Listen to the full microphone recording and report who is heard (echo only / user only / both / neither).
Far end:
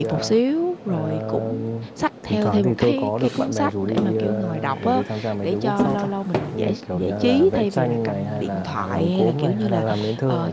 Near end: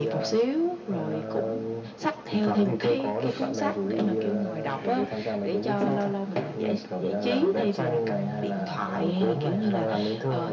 echo only